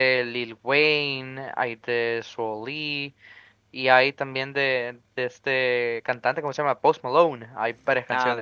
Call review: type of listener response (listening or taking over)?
taking over